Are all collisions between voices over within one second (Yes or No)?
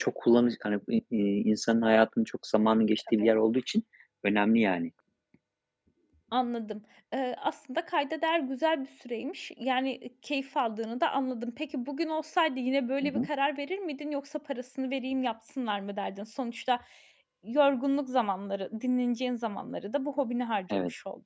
Yes